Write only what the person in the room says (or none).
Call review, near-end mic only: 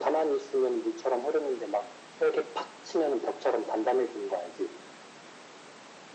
none